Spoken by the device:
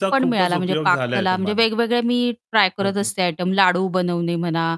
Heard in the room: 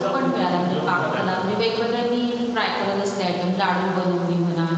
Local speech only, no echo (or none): none